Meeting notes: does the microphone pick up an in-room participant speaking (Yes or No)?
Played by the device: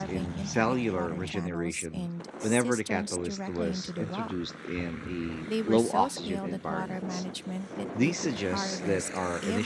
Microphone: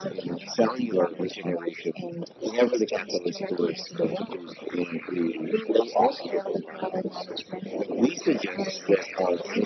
No